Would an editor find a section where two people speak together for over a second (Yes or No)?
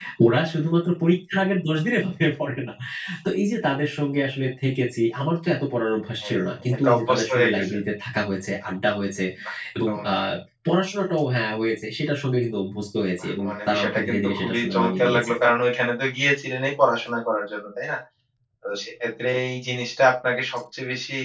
Yes